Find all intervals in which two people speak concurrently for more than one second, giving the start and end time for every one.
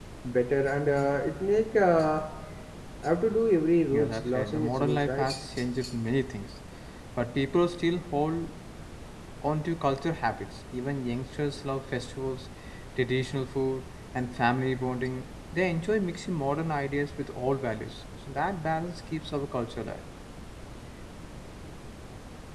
3.9-5.3

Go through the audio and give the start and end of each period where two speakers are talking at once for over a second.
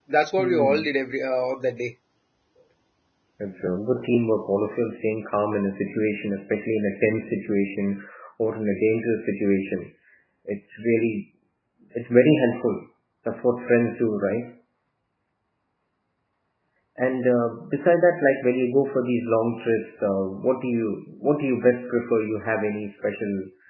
none

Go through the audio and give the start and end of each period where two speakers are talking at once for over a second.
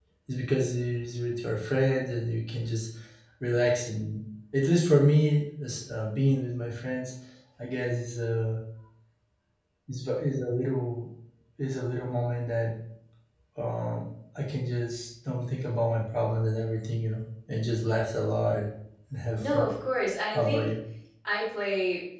none

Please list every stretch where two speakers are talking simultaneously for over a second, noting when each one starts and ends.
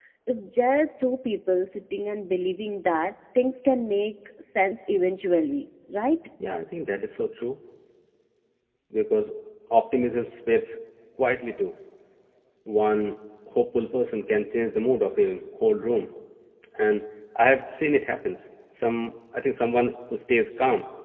none

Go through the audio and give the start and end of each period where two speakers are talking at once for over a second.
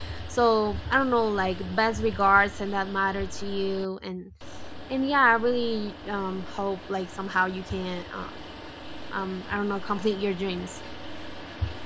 none

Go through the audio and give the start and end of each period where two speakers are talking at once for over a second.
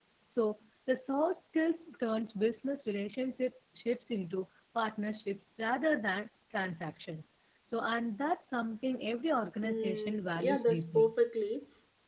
9.6-11.1

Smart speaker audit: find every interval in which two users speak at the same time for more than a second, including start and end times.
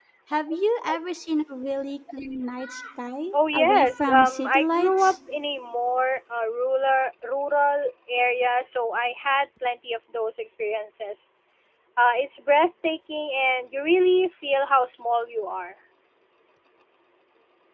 3.3-5.1

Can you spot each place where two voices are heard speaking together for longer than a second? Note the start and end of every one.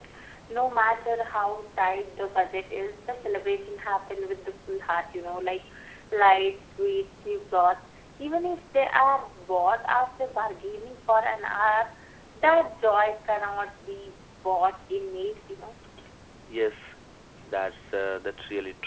none

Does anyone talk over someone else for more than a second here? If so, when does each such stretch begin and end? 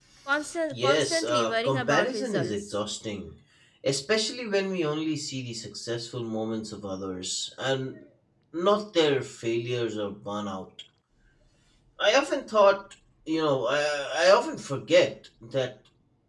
0.7-2.7

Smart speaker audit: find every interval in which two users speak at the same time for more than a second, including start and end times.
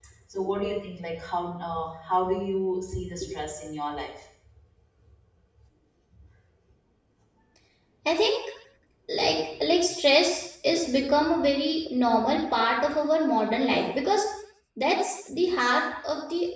none

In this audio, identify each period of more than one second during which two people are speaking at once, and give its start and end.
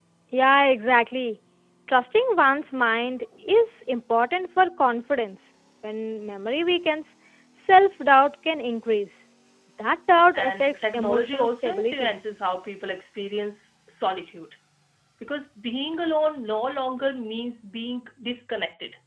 10.3-12.1

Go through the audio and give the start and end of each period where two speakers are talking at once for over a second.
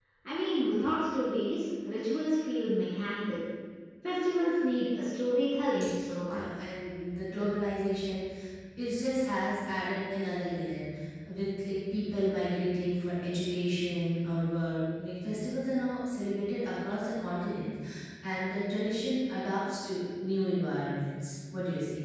none

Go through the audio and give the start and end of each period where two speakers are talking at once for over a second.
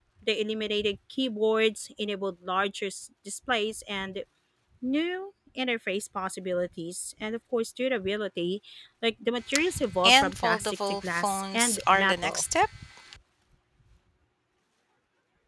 10.0-12.4

